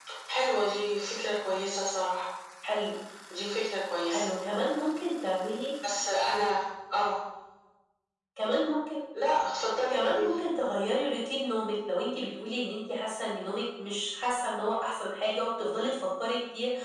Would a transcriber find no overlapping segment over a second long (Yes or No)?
Yes